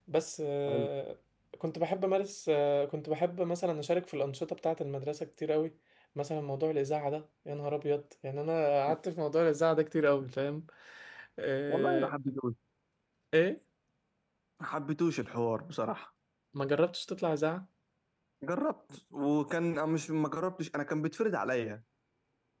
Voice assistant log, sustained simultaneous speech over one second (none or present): none